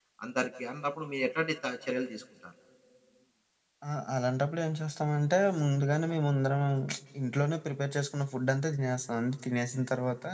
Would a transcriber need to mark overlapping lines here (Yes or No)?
No